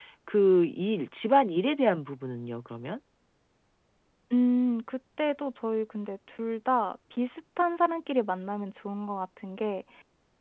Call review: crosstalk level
none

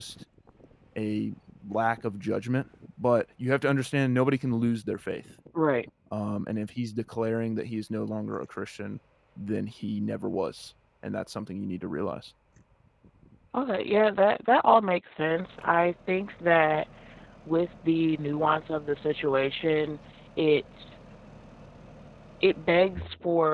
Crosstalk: none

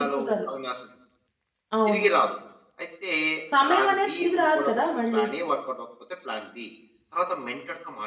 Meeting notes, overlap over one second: present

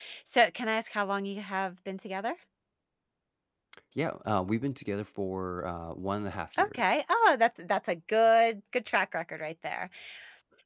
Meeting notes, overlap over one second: none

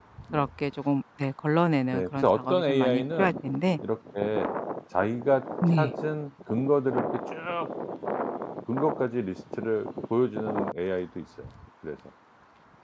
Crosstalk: present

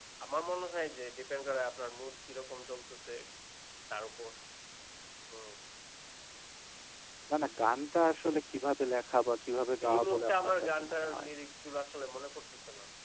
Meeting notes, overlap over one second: present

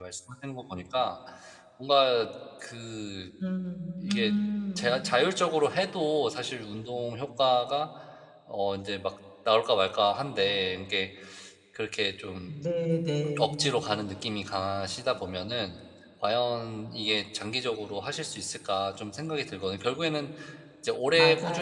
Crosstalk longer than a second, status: none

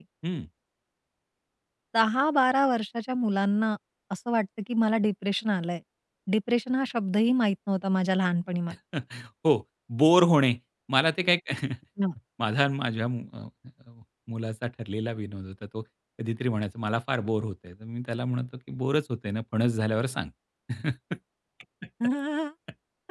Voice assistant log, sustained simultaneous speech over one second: none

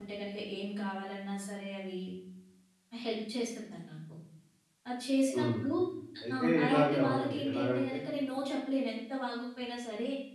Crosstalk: present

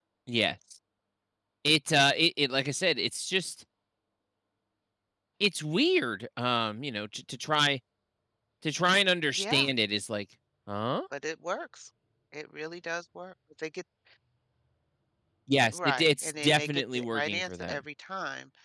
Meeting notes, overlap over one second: present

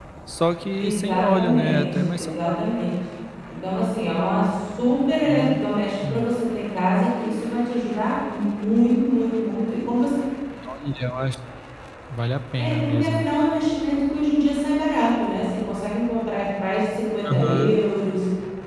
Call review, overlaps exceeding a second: present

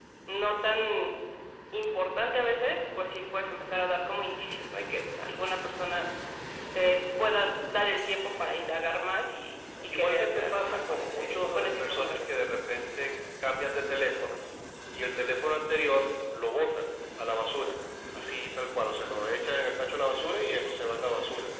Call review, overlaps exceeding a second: present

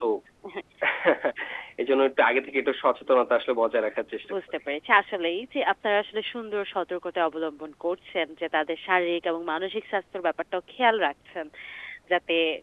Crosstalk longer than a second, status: none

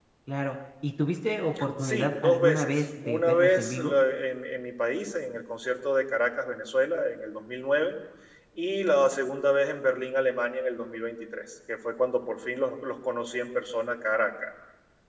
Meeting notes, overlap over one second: present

